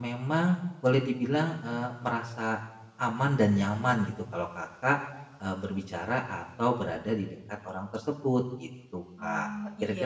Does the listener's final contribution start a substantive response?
Yes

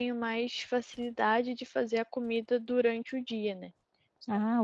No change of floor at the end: No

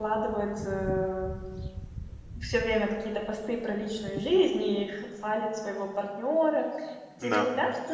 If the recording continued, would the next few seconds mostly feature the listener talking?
No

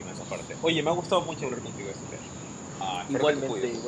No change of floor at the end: No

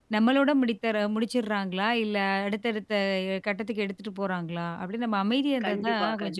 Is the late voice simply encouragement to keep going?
No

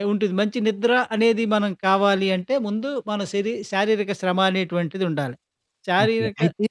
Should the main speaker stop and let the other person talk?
Yes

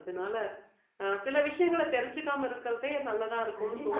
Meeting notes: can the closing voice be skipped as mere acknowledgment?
No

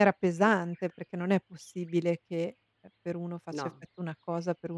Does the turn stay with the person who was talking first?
Yes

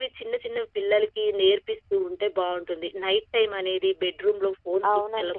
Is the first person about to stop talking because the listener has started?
No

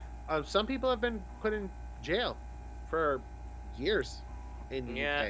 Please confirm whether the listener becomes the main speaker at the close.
Yes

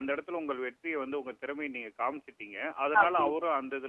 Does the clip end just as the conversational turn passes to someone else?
No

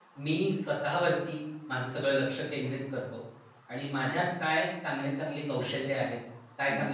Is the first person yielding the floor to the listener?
No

